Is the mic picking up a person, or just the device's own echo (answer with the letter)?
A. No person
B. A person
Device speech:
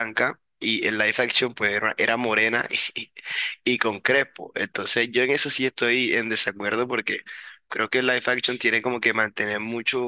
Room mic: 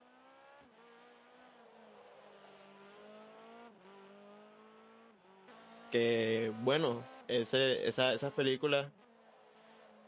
B